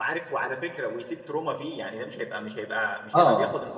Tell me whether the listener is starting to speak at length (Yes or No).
No